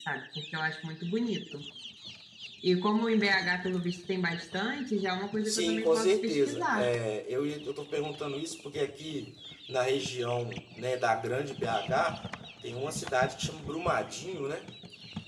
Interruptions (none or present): present